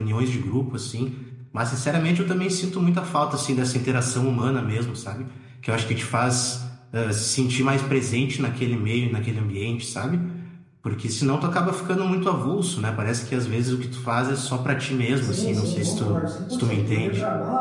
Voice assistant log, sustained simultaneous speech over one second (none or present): present